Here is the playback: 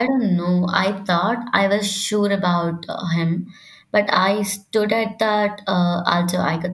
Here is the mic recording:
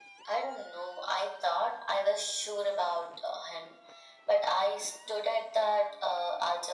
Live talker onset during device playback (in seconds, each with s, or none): none